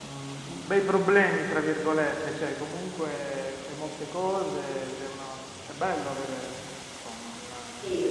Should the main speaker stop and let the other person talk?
Yes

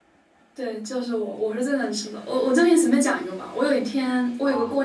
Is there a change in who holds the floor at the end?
No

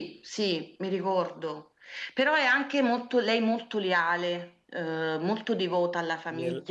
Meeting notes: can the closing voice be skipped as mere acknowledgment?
No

